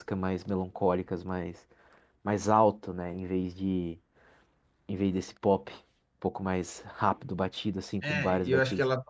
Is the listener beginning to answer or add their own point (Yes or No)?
Yes